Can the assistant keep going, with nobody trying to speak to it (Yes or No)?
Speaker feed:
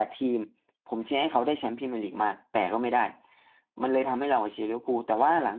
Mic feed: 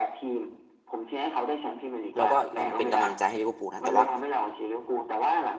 No